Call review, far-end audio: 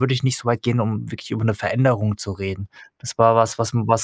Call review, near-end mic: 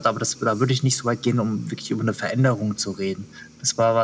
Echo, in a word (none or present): present